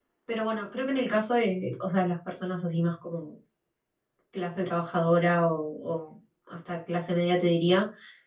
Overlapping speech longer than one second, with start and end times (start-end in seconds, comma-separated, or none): none